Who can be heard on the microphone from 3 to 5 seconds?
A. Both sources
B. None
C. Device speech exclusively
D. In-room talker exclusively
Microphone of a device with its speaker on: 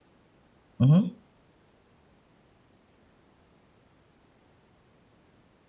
B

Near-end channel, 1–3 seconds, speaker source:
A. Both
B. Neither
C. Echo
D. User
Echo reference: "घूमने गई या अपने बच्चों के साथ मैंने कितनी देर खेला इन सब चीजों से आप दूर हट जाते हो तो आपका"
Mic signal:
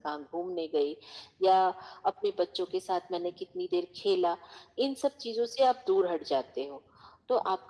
C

